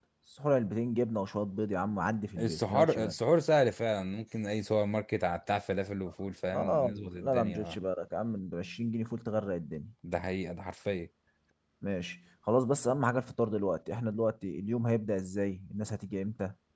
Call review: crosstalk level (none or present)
present